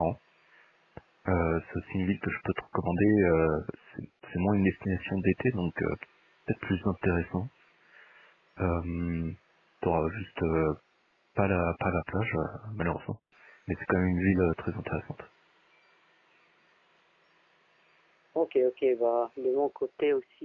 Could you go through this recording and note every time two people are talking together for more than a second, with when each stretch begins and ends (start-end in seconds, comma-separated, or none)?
none